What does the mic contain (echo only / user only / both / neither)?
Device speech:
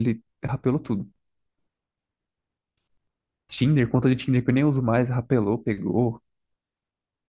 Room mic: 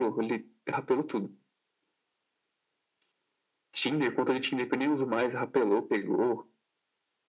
echo only